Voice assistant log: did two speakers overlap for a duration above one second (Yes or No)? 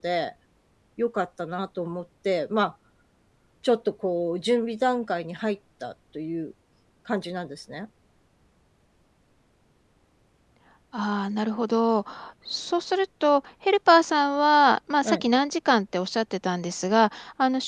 No